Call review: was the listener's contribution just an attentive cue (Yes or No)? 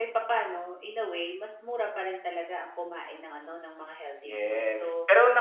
No